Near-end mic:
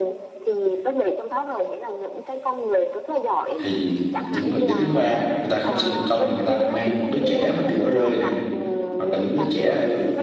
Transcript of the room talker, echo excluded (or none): thì những người giới tính thứ ba á, người ta không sinh được con thì người ta lại mang những đứa trẻ mà bị bỏ rơi này hoặc là những đứa trẻ ở